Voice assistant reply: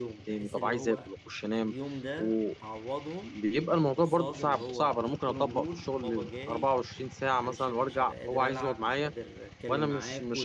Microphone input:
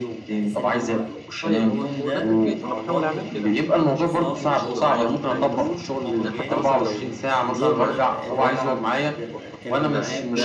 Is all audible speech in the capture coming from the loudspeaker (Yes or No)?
No